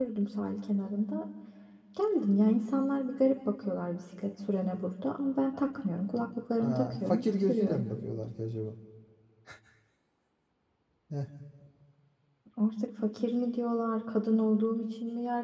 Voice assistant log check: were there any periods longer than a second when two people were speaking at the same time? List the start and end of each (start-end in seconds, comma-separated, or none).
6.6-7.8